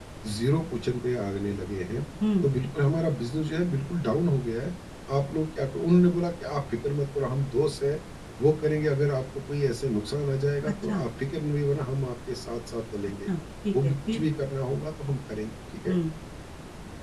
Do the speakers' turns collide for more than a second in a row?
No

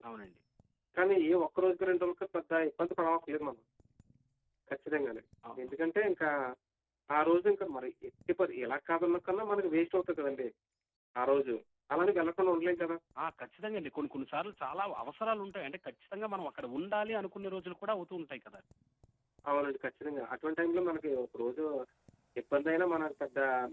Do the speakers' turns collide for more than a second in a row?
No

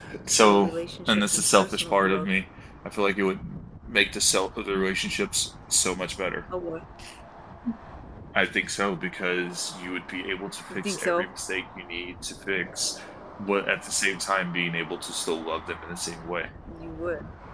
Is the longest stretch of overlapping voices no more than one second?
No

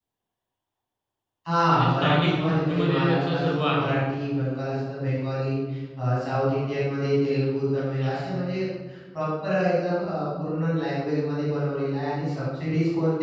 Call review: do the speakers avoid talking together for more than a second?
No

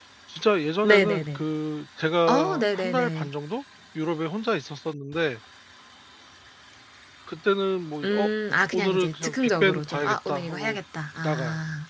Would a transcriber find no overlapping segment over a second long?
No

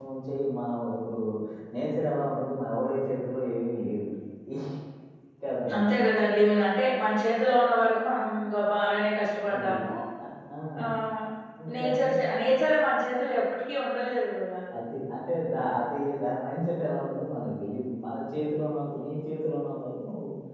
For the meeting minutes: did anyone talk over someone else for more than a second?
No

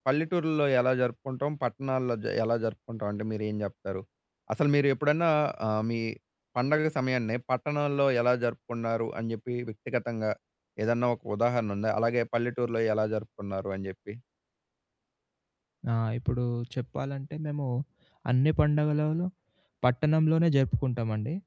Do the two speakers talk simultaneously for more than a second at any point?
No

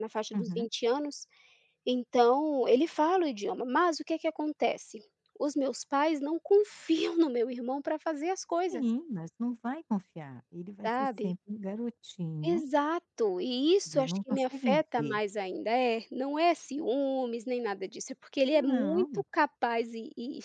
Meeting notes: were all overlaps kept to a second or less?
No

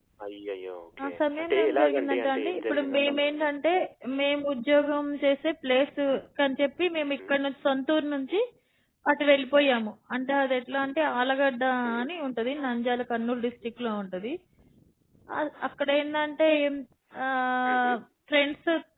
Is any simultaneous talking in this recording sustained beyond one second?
Yes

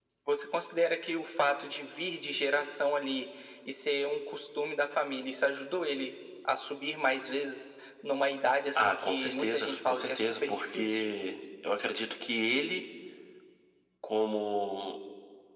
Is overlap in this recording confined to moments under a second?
No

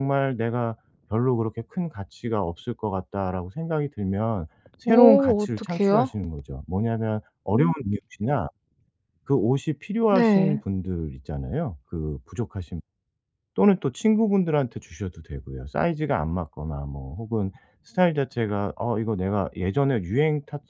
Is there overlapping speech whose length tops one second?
Yes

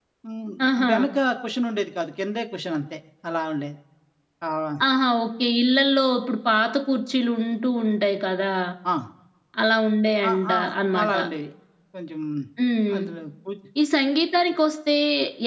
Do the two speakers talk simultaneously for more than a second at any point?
No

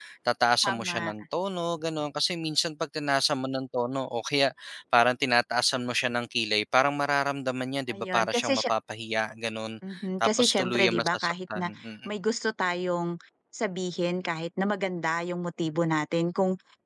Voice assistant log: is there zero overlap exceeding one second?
No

